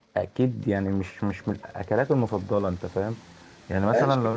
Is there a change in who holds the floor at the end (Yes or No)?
Yes